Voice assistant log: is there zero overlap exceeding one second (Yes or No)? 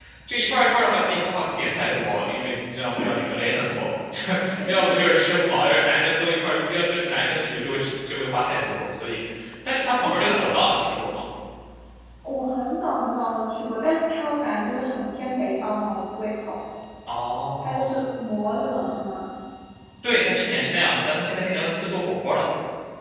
Yes